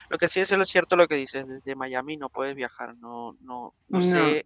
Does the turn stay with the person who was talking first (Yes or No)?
Yes